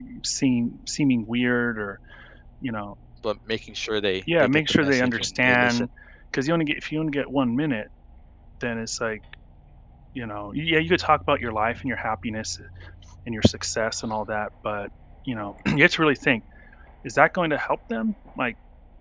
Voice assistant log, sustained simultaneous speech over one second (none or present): present